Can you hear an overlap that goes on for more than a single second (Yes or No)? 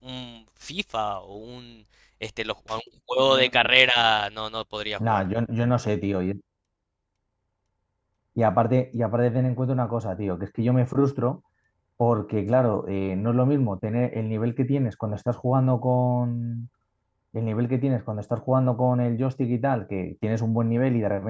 No